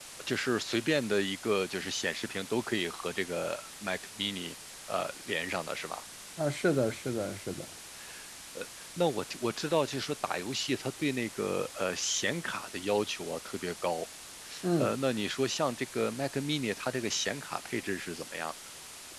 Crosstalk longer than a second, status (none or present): none